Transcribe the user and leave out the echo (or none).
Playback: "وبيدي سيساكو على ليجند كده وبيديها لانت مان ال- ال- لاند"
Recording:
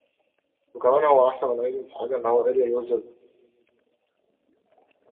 وكمان هو احسن من ايدن في حاجه ان هو اريال ويزرد